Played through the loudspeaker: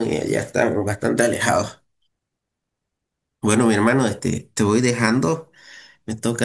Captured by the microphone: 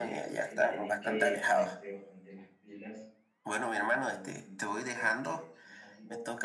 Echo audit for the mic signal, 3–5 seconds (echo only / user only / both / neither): both